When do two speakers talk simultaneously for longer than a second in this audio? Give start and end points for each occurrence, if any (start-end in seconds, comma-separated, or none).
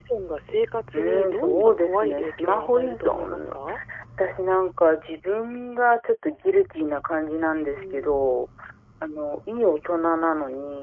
0.9-3.5